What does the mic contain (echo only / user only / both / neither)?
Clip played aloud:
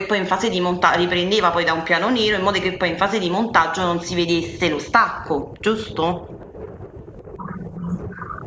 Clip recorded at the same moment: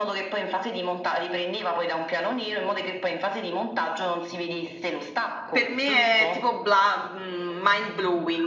both